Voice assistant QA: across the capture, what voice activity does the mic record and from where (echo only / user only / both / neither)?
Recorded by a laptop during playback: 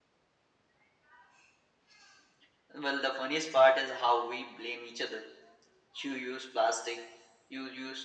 echo only